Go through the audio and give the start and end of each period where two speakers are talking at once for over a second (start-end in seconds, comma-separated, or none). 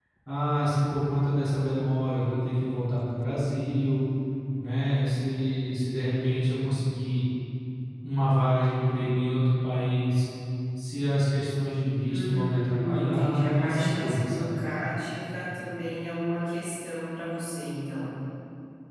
12.1-14.5